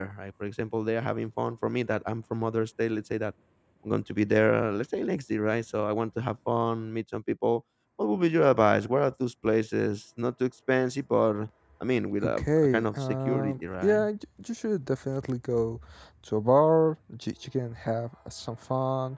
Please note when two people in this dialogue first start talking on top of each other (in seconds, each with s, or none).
12.2 s